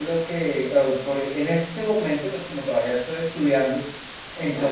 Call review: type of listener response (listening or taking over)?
listening